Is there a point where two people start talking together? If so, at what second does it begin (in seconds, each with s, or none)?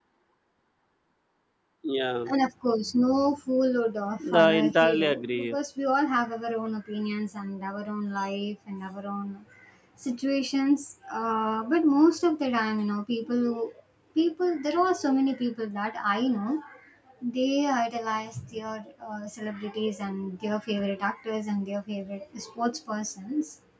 4.2 s